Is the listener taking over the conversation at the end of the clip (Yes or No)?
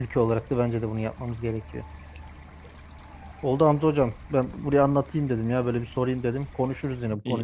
Yes